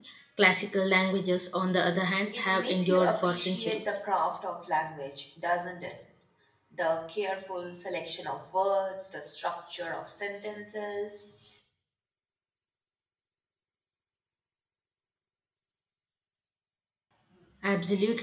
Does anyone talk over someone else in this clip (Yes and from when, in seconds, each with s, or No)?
Yes, from 2.3 s